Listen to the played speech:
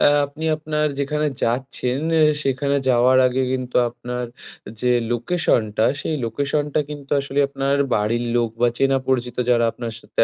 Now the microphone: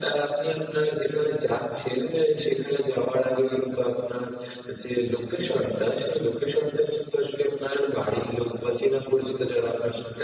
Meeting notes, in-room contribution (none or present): none